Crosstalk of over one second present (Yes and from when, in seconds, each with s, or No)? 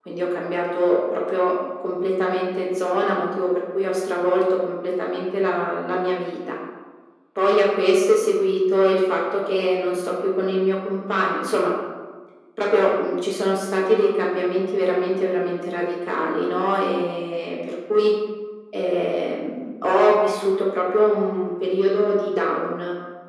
No